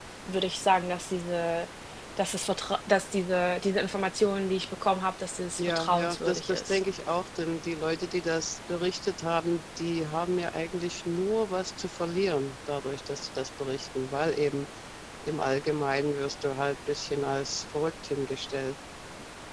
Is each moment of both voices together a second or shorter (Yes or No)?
No